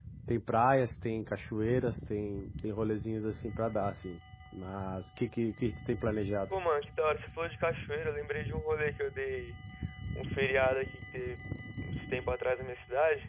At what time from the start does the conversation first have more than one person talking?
none

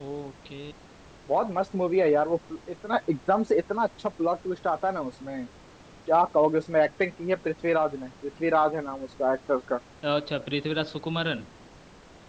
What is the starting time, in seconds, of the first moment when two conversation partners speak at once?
none

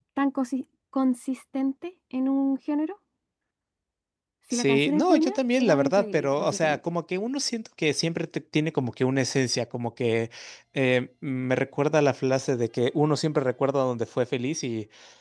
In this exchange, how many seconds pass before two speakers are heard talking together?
4.5 s

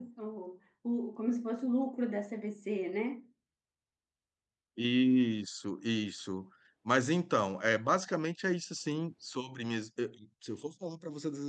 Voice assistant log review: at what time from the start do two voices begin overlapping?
none

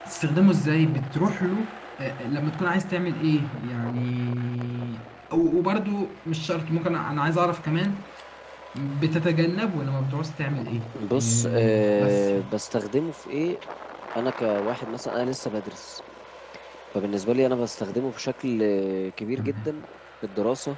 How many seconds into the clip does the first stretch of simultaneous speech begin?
10.9 s

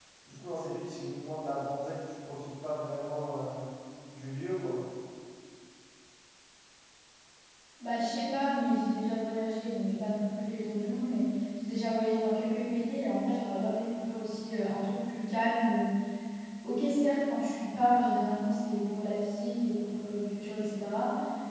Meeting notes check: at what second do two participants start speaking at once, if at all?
none

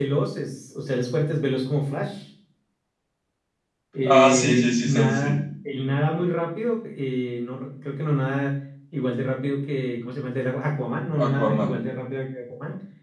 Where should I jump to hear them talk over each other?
4.1 s

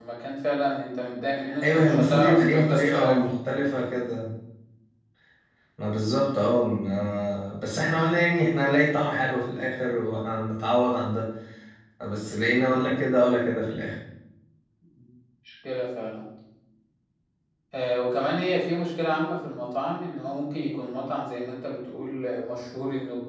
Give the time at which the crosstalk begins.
1.4 s

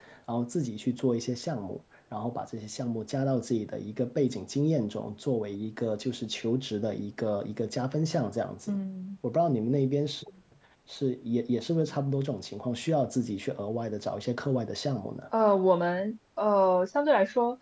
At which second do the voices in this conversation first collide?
none

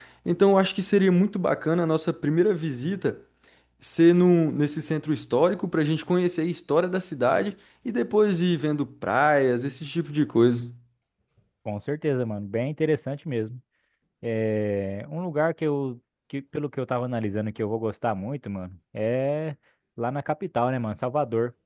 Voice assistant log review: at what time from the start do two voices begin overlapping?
none

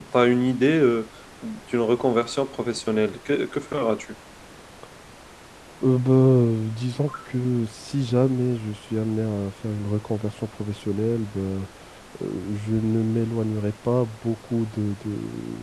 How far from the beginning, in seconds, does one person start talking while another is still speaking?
none

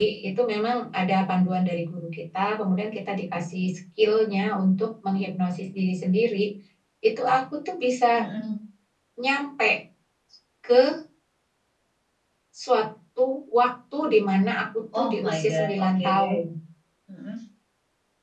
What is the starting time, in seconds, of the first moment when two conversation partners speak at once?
14.9 s

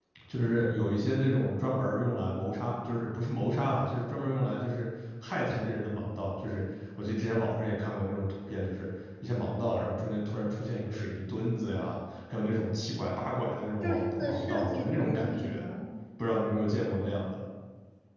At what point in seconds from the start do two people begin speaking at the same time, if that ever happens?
13.8 s

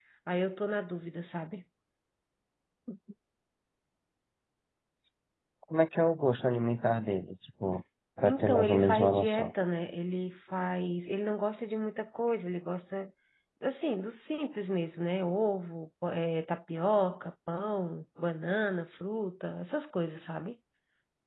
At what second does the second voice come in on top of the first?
8.2 s

